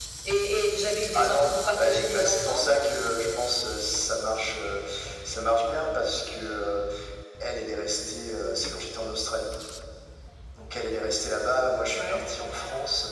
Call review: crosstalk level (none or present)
present